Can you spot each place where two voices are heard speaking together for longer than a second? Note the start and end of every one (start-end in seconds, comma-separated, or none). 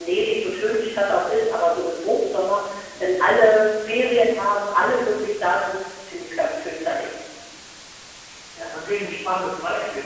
none